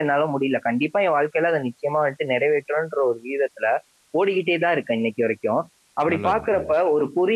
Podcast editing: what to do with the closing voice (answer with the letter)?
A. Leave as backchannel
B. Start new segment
A